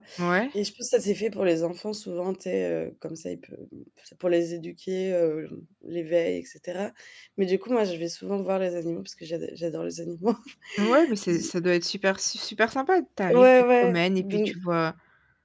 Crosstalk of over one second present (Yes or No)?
Yes